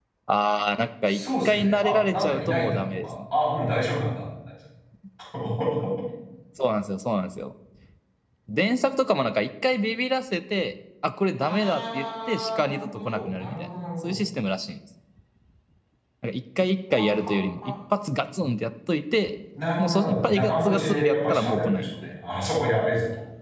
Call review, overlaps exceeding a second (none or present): present